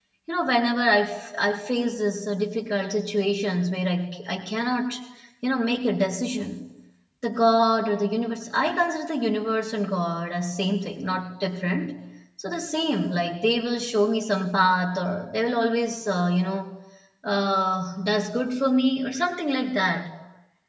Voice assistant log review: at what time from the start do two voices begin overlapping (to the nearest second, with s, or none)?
none